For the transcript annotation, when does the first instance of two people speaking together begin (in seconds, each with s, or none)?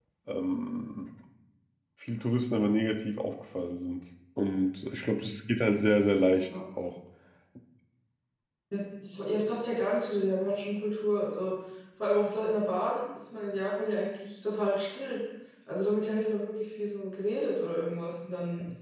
none